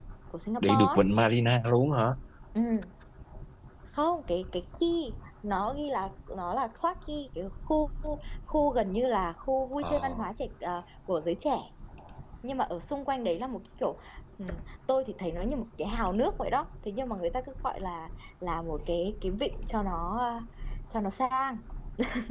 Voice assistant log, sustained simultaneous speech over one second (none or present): none